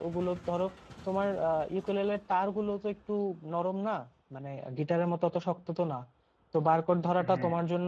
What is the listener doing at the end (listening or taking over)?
listening